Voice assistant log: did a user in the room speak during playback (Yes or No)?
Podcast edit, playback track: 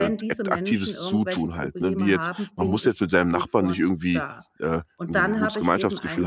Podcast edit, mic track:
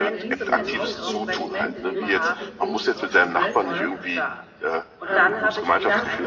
Yes